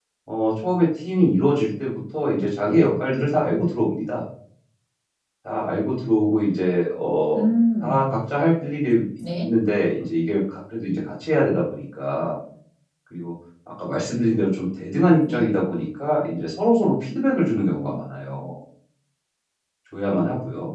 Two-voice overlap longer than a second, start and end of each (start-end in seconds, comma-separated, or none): none